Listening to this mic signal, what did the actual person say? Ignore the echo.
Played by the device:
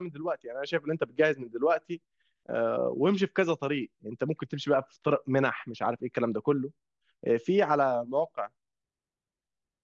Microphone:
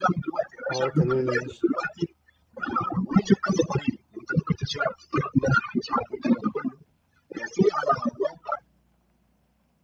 اه تمام ماشي

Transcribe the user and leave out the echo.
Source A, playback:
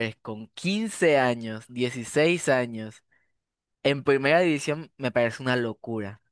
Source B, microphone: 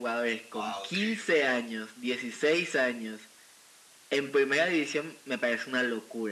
Wow, ok, ok.

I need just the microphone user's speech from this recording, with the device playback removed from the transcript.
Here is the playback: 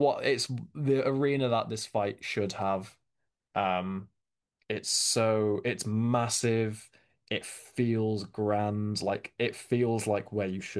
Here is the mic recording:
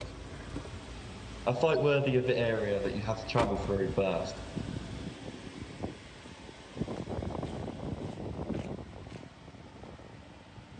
A fight worthy of the area that you have to travel through first.

